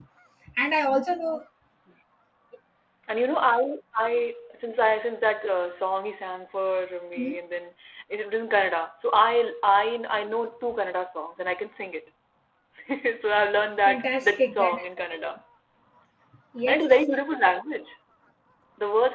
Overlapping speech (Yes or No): Yes